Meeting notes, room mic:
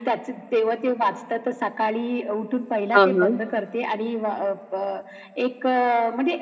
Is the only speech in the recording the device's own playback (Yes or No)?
No